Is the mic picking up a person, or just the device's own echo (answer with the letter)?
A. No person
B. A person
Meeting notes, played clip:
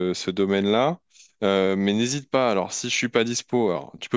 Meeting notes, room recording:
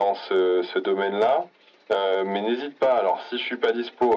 A